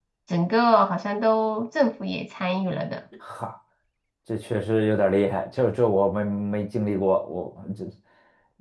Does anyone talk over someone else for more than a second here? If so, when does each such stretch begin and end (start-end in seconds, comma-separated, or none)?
none